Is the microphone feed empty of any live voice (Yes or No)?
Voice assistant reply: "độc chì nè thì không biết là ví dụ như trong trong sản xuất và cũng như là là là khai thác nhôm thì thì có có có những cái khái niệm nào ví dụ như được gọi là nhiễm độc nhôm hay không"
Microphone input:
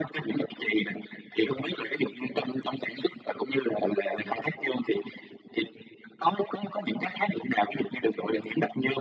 Yes